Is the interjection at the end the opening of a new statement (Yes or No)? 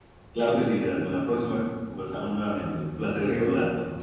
Yes